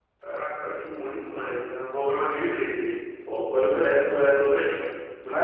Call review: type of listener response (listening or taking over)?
taking over